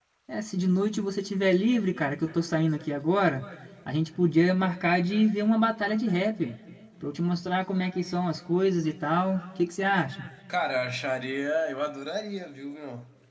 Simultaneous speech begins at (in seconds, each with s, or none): none